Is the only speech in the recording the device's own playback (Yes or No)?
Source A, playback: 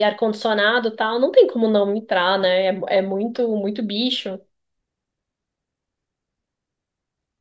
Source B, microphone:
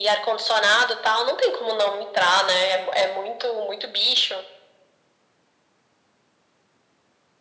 Yes